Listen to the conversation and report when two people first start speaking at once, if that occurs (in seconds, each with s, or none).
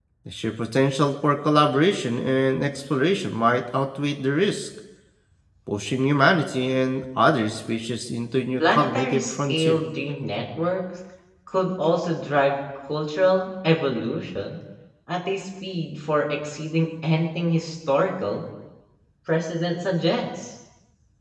8.6 s